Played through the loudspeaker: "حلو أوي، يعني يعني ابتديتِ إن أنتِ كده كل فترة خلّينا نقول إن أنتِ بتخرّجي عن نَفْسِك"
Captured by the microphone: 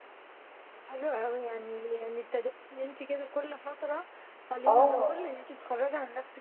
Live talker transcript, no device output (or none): آه.